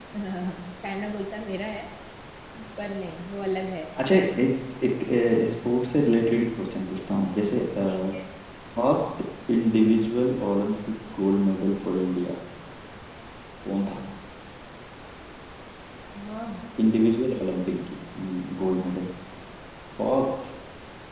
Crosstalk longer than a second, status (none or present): none